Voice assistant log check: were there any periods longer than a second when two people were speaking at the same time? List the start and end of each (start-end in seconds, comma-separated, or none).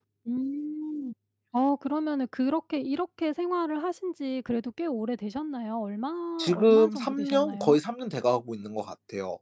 6.5-7.8